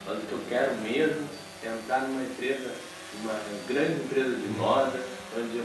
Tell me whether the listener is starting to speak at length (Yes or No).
No